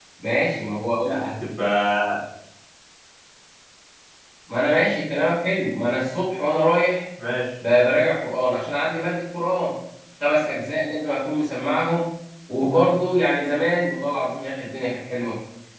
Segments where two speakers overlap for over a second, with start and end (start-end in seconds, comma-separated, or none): none